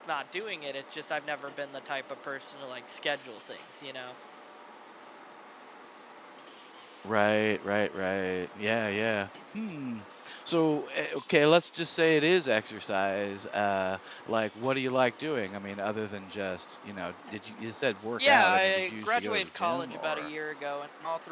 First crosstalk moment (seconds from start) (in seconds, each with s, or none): 18.2 s